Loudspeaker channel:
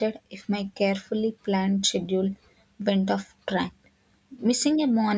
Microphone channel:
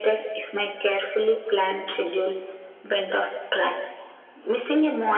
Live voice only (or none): none